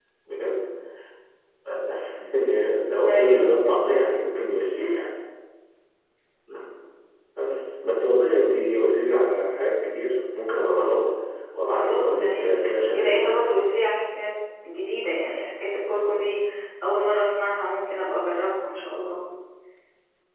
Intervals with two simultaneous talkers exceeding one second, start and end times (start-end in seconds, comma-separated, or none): 11.8-13.4